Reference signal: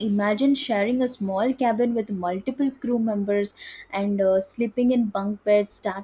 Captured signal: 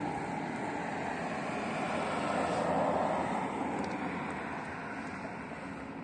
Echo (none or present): none